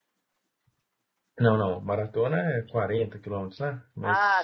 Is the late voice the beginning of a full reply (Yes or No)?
Yes